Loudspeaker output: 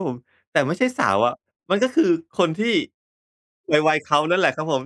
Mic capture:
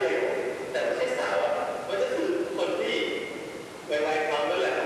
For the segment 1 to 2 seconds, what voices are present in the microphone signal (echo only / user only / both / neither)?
echo only